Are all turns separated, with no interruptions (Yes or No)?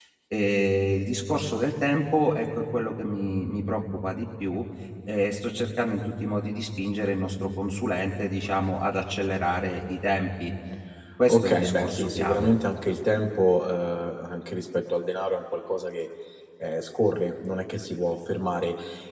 No